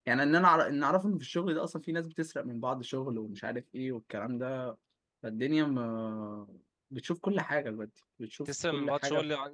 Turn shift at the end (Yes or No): Yes